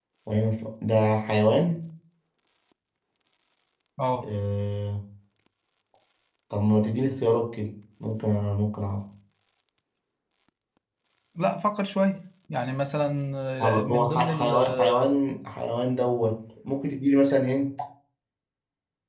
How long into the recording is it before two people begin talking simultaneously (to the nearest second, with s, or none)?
14 s